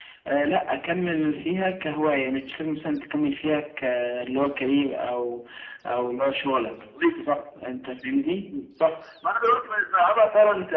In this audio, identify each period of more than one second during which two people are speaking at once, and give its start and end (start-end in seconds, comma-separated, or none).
none